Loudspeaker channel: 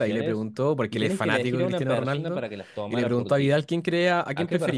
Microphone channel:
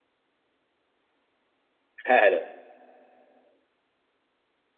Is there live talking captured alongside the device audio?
Yes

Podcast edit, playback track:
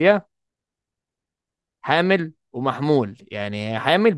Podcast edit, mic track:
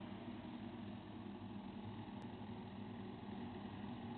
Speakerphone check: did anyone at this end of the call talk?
No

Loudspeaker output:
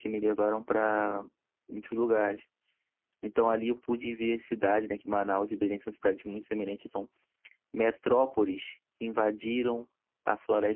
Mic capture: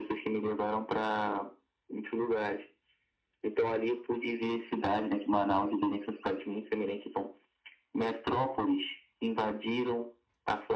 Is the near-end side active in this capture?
No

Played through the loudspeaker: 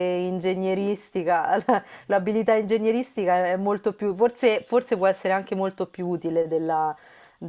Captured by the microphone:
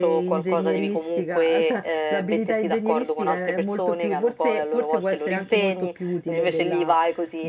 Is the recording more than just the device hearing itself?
Yes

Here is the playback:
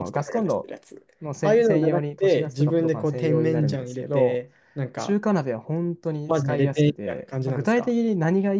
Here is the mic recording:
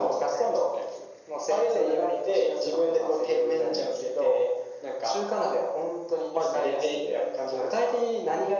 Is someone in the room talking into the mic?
No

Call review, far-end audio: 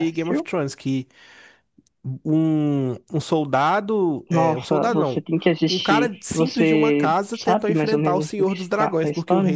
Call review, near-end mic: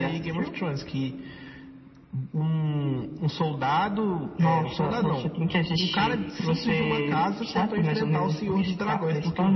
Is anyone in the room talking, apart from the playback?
No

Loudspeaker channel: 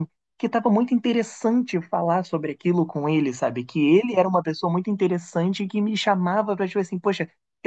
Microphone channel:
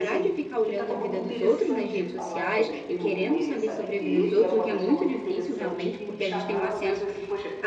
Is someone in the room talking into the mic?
Yes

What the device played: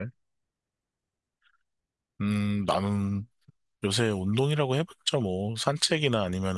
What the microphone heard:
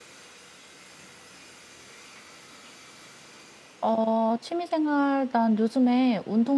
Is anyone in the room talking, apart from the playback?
Yes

